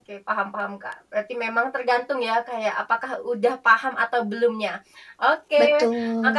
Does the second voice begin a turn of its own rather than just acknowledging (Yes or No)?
No